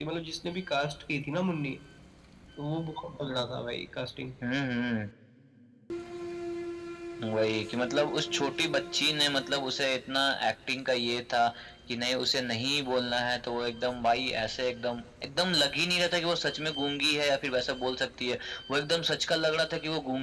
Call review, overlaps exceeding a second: none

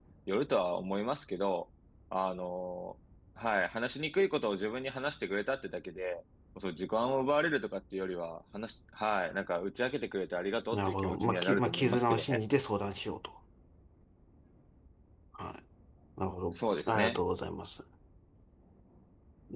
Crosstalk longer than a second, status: present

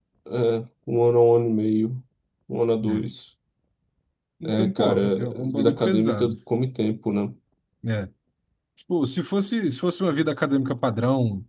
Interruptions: present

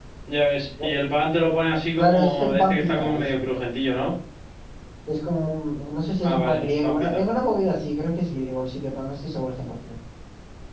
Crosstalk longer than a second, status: present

